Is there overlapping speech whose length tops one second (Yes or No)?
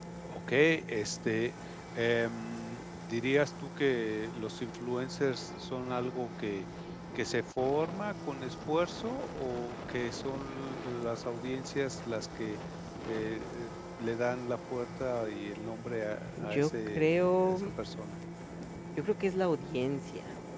Yes